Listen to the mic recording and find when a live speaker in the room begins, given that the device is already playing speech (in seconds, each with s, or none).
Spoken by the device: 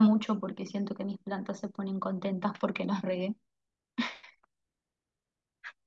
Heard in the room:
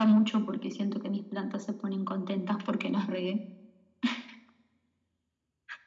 none